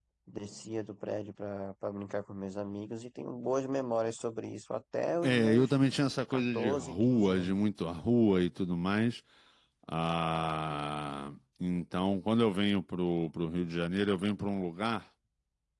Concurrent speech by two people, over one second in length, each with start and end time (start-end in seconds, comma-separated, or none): 6.3-7.5